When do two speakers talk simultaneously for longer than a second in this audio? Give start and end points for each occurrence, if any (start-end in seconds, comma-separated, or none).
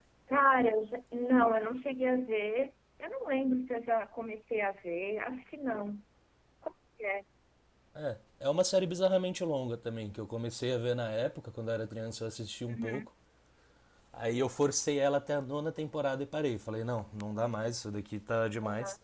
none